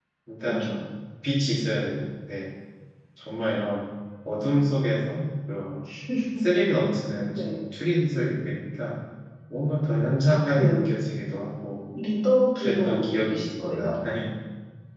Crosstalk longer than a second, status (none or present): present